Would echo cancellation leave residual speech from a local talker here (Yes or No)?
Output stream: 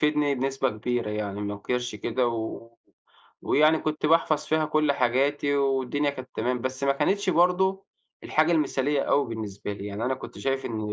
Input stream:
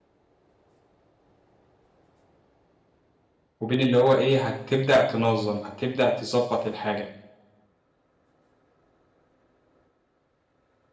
Yes